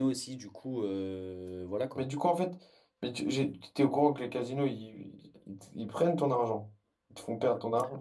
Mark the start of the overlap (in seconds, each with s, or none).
none